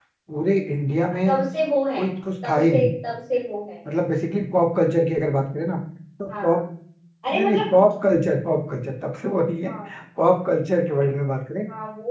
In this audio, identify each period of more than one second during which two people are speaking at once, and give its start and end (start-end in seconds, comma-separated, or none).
none